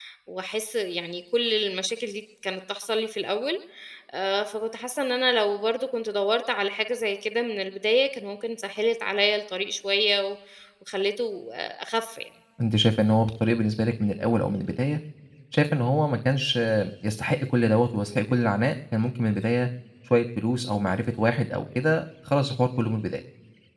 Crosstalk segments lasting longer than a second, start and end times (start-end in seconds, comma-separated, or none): none